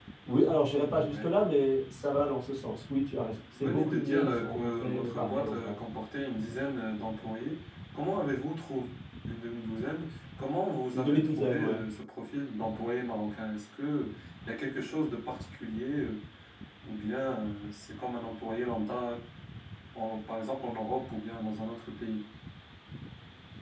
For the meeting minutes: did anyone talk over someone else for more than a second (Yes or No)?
Yes